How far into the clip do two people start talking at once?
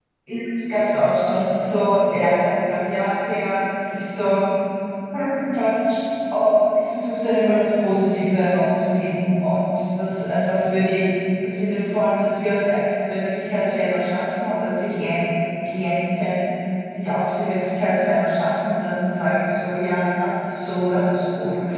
none

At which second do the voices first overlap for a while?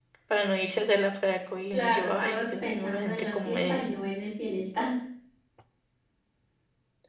2 s

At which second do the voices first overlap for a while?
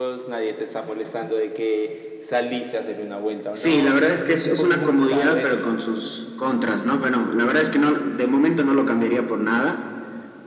4 s

